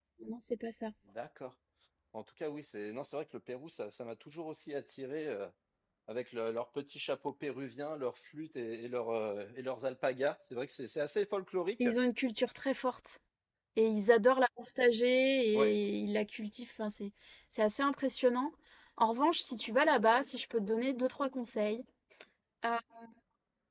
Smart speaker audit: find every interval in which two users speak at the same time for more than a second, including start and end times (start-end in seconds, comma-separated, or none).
none